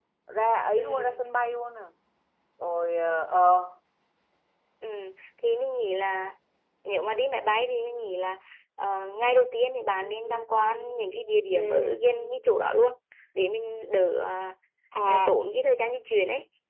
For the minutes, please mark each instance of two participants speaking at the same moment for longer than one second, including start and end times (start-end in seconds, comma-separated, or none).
none